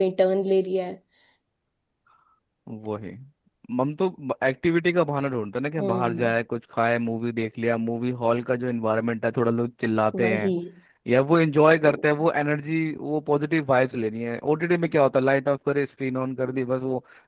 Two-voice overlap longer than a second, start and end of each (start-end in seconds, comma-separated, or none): none